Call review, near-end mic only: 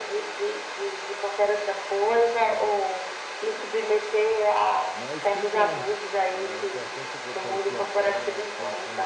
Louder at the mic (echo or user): echo